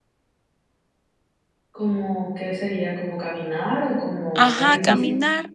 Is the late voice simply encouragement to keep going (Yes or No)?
No